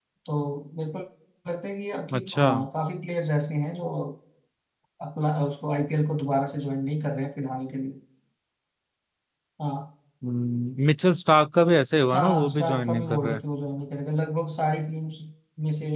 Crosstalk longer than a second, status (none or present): present